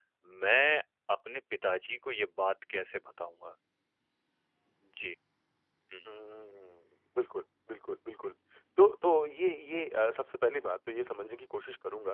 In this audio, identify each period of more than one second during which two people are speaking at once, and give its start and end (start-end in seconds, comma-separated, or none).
none